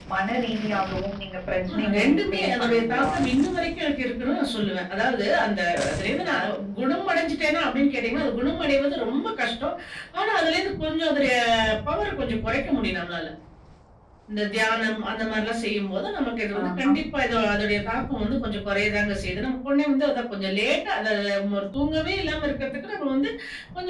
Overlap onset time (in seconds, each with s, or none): 1.7 s